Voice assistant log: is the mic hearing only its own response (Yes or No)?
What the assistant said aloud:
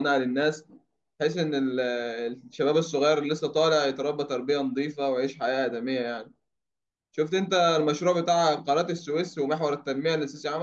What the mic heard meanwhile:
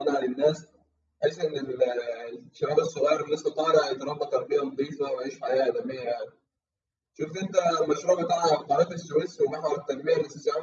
Yes